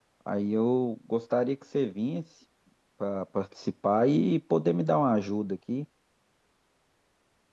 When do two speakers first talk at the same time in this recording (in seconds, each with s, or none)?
none